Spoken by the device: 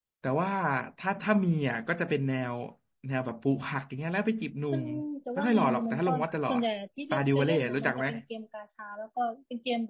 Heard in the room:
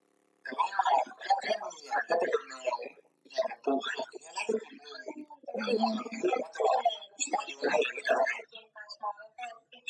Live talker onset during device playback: 6 s

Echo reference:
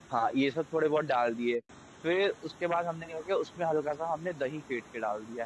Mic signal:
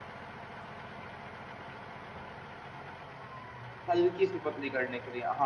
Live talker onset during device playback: 4 s

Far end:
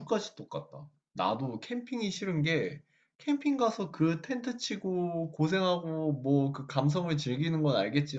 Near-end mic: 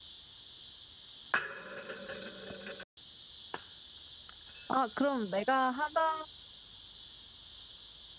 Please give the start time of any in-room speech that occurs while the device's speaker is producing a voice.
5 s

